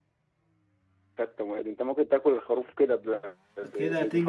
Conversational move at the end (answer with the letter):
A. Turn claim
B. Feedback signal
A